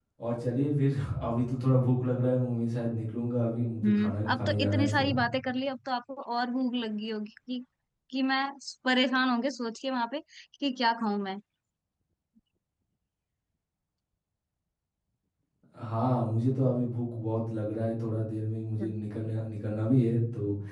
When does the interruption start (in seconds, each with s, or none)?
3.8 s